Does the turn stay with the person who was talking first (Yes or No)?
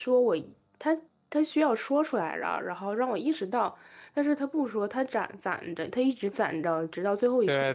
No